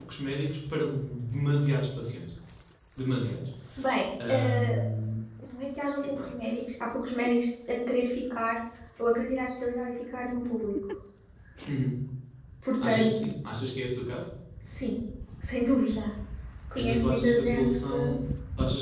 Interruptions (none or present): present